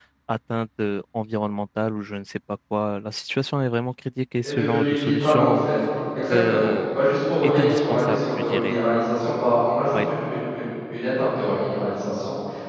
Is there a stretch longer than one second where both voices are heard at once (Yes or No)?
Yes